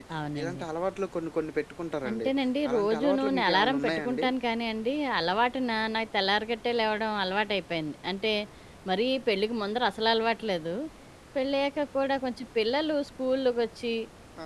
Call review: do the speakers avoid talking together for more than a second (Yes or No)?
No